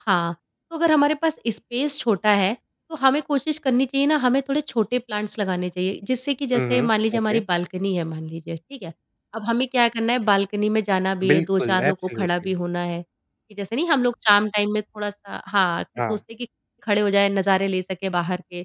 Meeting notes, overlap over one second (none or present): present